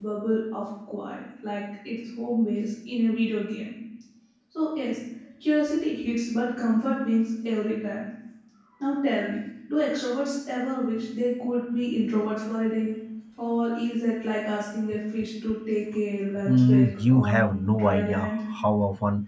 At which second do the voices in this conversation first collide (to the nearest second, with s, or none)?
16 s